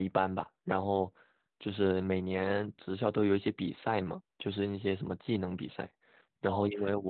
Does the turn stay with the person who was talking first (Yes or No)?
Yes